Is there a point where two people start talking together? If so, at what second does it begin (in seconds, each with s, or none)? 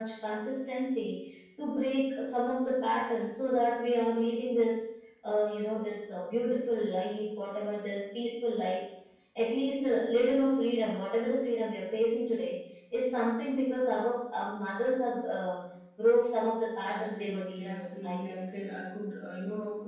16.8 s